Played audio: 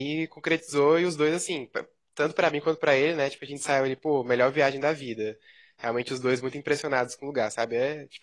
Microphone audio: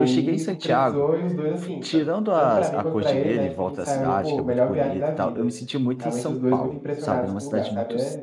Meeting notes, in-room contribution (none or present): present